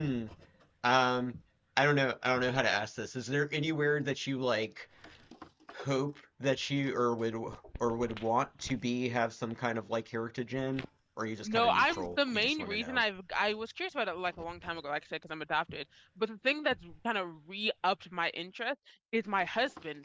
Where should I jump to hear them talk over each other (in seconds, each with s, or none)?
11.4 s